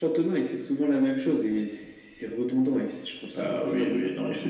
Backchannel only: No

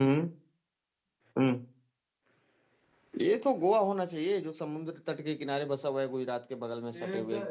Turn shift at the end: Yes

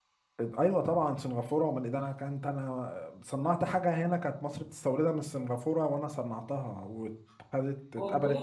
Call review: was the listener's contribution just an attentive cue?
Yes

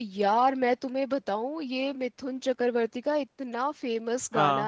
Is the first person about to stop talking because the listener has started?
No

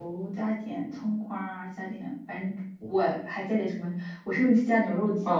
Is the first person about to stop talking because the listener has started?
Yes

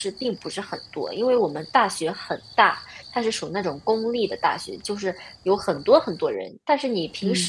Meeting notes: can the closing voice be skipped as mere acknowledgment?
Yes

